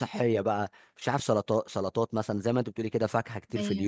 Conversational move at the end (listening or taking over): listening